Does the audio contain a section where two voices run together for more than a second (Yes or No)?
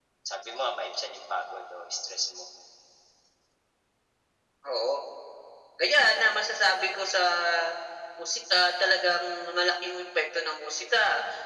No